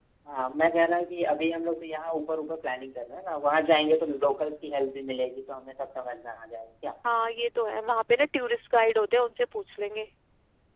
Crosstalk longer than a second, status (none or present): none